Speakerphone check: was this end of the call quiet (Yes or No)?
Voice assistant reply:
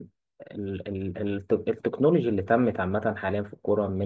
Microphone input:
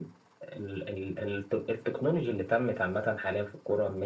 Yes